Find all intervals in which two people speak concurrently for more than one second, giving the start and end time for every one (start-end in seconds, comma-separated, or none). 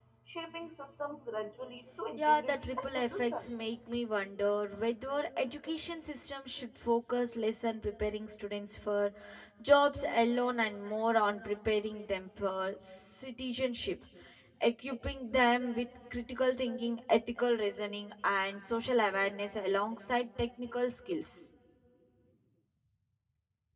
2.2-3.5